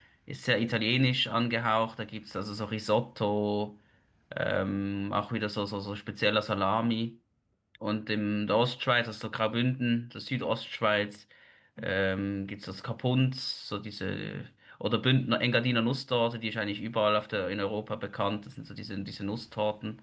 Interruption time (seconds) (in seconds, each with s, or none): none